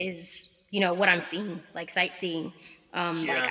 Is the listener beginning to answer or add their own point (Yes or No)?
No